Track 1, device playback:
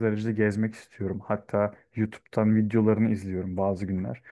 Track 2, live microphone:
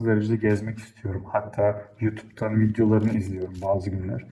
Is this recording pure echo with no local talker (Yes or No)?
Yes